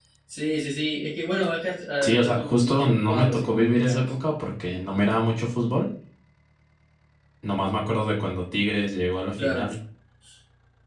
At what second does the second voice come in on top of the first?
2.0 s

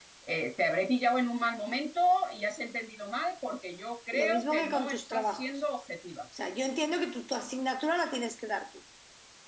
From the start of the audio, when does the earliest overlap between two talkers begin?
4.1 s

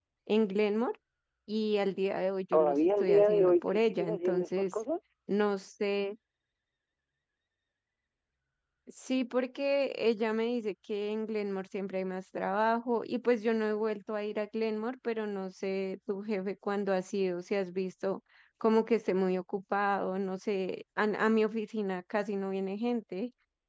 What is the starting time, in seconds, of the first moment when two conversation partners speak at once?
2.5 s

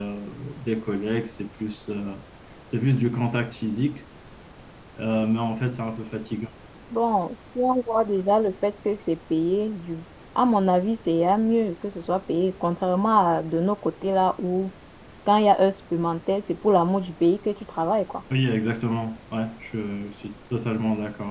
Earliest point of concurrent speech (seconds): none

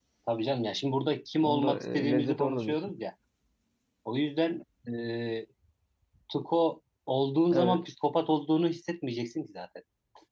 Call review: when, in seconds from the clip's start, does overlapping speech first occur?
1.4 s

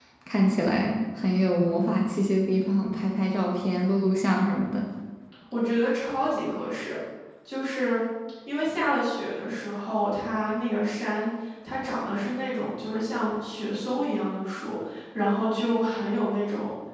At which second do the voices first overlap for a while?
none

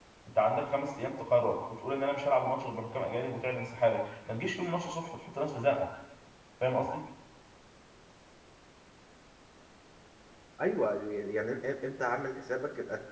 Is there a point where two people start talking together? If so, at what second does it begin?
none

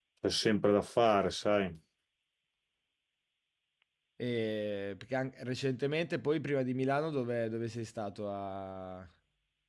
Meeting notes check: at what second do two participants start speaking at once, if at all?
none

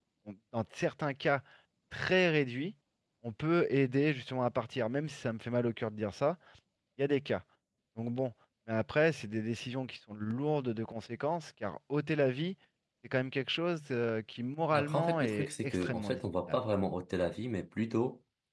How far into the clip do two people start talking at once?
14.7 s

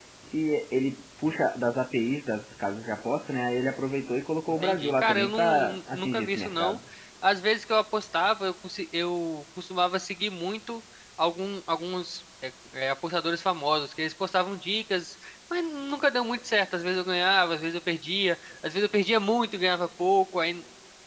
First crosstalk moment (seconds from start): 4.6 s

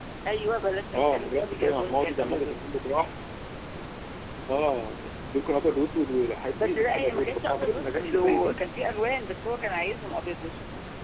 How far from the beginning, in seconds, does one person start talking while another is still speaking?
0.9 s

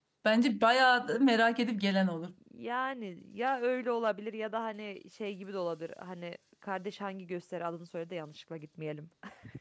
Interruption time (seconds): none

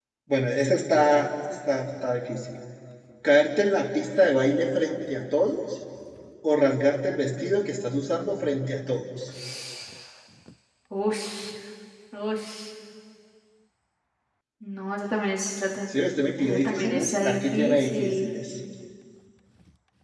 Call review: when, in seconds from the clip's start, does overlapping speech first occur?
16.4 s

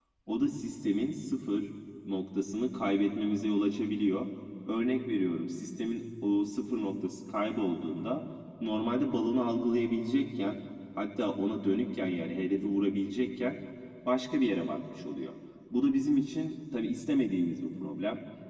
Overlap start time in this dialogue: none

